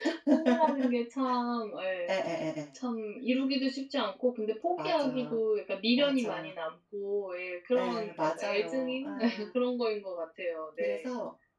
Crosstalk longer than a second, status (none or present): present